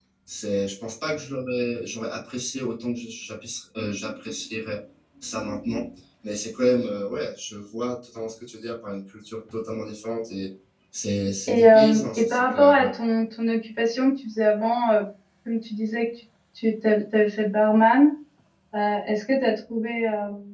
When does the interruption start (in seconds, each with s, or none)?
11.5 s